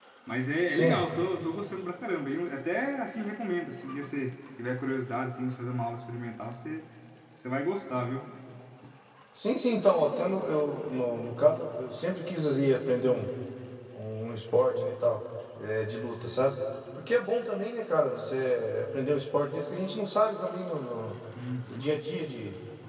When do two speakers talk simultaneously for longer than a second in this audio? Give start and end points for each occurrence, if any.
none

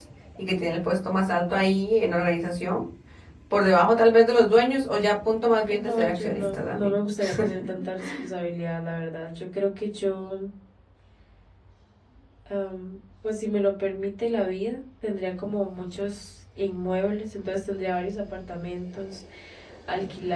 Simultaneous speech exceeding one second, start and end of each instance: 5.7-6.9

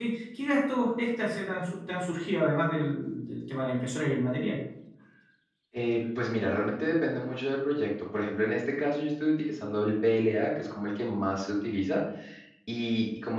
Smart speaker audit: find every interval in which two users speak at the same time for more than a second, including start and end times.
none

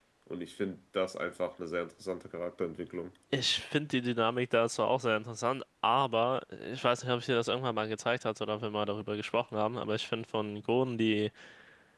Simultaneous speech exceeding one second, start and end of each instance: none

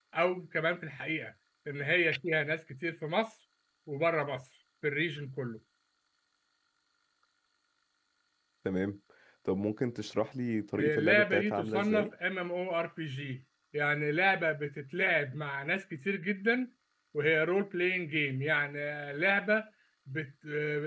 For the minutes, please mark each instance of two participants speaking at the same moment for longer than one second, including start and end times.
10.8-12.1

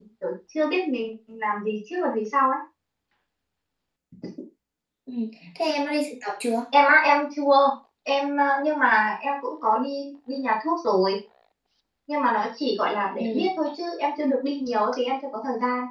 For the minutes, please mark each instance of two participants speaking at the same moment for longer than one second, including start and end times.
none

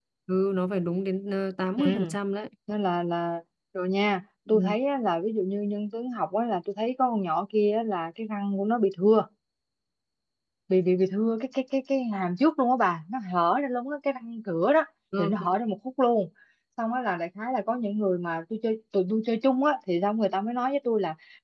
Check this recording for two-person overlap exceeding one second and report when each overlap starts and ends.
none

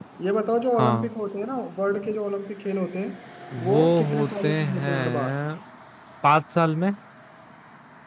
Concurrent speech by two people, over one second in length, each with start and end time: 3.6-5.3

